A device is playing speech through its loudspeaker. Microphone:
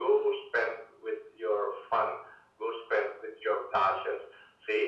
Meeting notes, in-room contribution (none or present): none